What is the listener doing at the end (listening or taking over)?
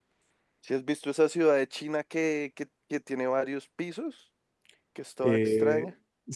taking over